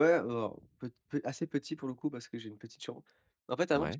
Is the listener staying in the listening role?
Yes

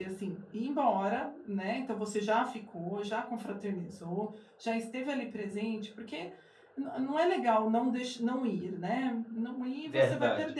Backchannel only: Yes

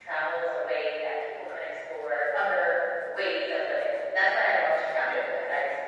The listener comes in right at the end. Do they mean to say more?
No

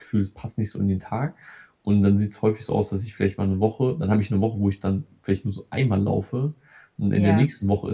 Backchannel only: Yes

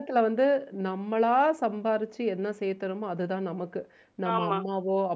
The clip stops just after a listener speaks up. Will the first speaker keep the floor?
Yes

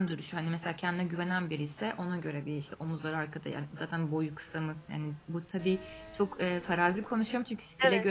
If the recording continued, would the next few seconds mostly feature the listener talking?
No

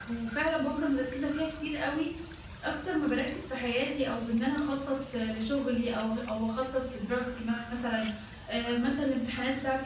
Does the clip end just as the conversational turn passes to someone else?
No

